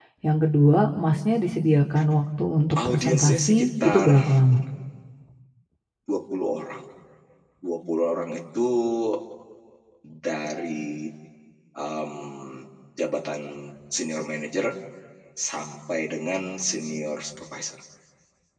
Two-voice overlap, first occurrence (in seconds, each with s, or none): 2.8 s